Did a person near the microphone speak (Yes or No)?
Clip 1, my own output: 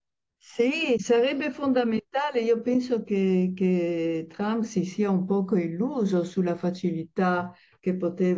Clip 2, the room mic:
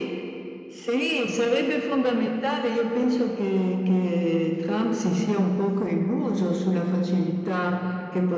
No